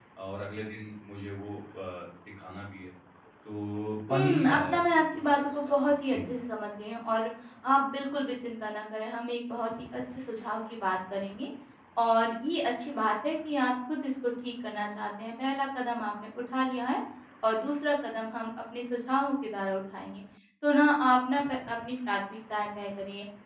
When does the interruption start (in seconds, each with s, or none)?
4.1 s